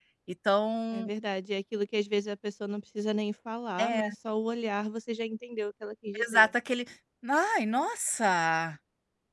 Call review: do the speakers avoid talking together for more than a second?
Yes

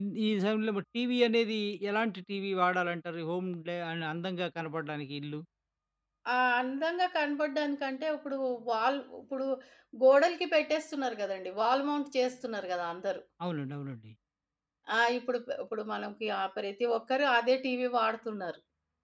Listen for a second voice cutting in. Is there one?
No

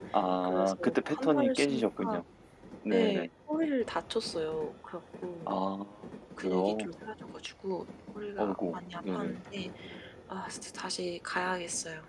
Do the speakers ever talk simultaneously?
Yes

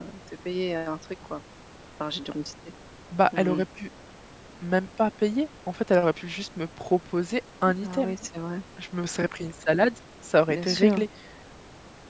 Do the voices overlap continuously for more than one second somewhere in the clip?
No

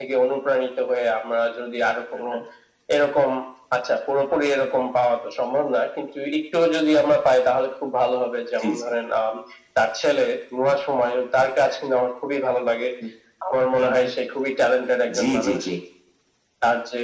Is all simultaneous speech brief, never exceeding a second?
Yes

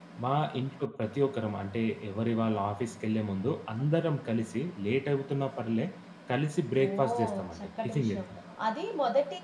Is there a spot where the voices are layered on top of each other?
Yes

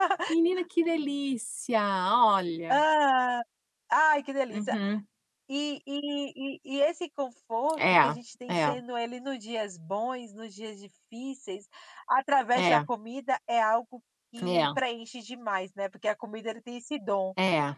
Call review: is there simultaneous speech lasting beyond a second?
No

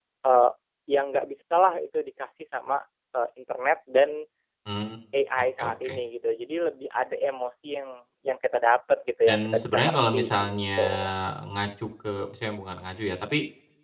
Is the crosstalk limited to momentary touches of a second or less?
No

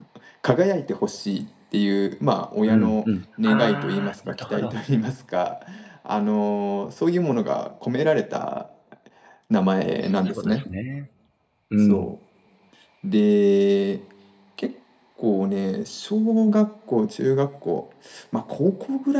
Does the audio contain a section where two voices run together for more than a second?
Yes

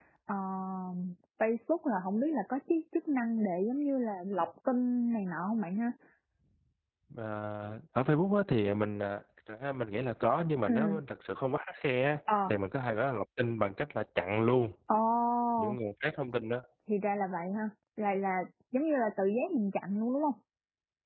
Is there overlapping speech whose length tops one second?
No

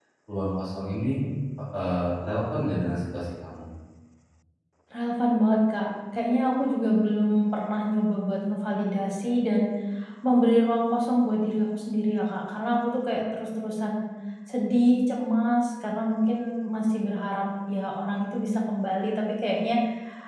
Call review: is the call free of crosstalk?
Yes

